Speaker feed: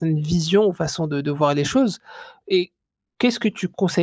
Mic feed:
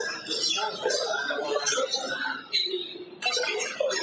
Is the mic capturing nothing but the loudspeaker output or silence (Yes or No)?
Yes